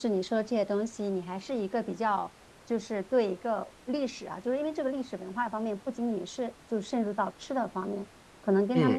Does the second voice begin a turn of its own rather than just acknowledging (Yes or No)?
No